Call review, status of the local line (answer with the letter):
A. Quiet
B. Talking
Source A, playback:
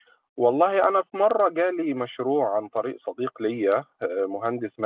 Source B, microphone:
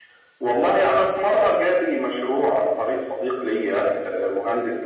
A